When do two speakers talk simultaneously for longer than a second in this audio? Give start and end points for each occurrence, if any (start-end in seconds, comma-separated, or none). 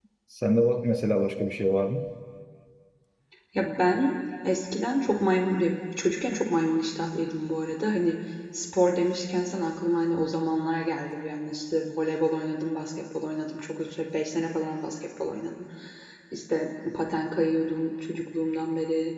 none